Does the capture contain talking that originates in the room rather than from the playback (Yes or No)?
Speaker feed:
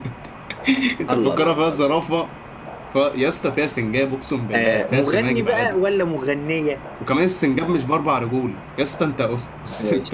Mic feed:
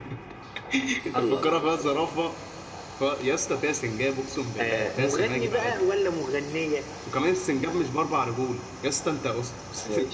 No